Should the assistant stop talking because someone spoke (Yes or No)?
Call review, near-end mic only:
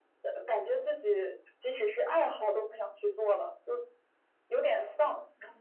No